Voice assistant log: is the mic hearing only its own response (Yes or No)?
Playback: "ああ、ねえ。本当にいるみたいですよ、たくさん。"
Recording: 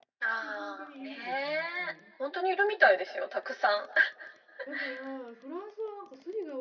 No